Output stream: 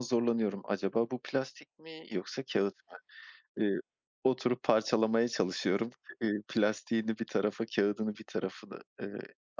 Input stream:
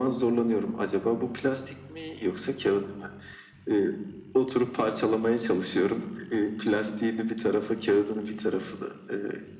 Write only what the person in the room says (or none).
none